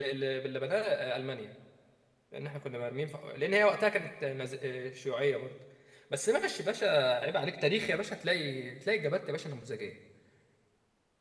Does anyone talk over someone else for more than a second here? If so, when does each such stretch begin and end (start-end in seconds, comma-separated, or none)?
none